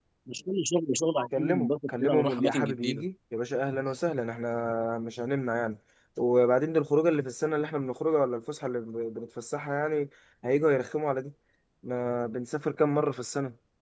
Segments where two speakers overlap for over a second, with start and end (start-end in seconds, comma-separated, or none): 1.4-3.0